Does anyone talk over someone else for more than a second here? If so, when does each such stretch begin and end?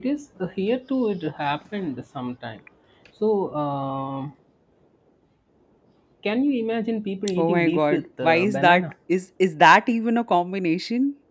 7.4-8.8

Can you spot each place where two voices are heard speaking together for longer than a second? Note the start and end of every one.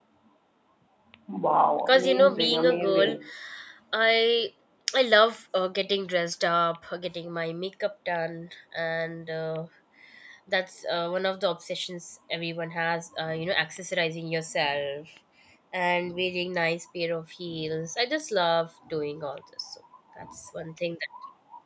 1.9-3.1

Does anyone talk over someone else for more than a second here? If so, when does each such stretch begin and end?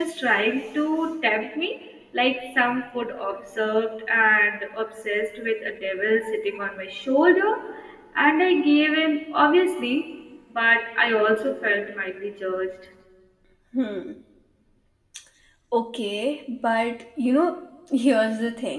none

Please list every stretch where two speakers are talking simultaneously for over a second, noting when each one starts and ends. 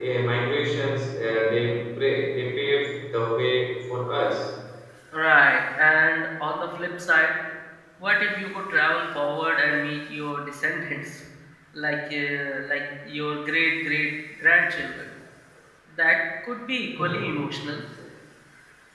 none

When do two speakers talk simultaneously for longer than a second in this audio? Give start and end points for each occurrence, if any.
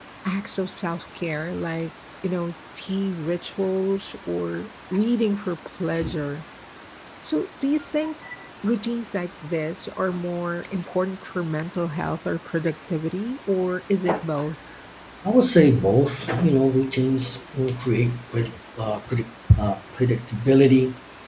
none

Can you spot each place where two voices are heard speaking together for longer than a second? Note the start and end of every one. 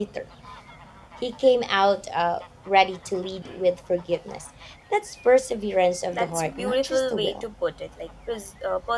6.1-7.4

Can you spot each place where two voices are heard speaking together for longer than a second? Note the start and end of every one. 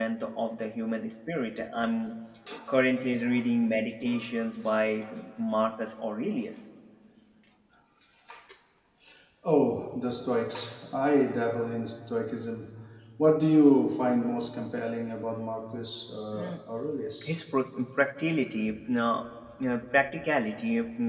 none

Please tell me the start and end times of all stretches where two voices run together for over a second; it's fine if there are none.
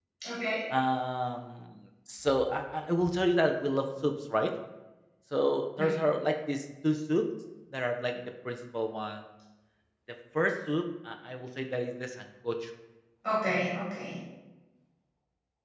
none

